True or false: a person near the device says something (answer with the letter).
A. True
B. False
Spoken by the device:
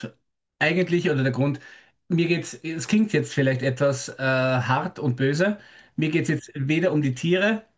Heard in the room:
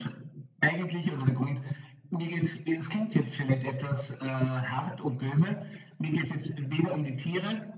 B